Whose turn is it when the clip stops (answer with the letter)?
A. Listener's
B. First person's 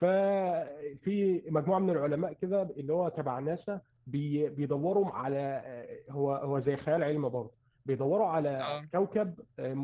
B